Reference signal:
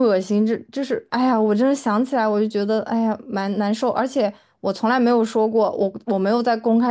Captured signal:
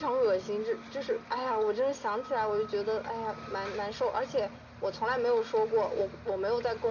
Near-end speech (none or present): none